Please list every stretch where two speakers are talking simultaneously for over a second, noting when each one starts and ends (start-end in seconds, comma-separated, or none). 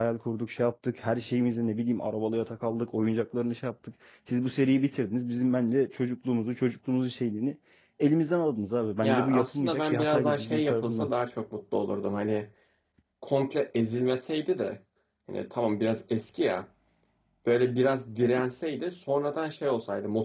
9.0-11.1